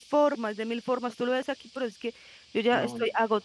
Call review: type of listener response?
listening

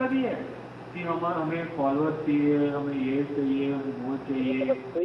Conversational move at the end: taking over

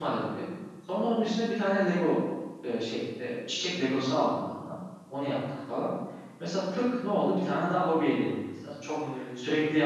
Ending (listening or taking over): listening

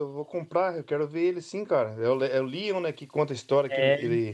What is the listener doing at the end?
listening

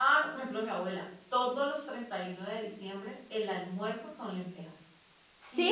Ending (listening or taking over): listening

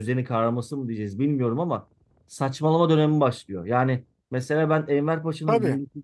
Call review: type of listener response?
listening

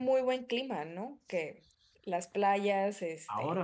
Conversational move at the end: taking over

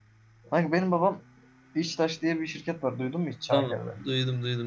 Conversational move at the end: taking over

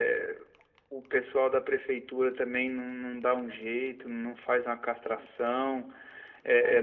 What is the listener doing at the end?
listening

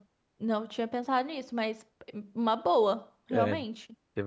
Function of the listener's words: taking over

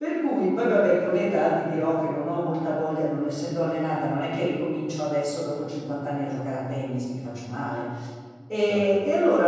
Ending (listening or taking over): listening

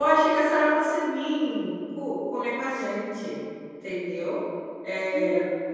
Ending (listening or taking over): taking over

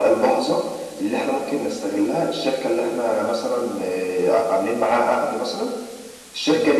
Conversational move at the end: listening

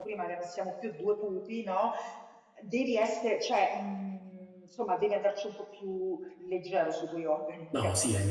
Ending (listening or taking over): taking over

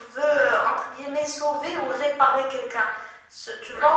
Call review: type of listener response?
listening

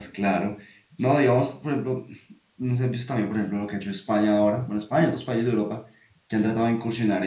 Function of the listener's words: listening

